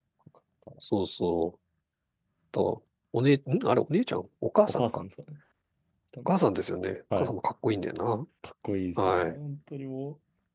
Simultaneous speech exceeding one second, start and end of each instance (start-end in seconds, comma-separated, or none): none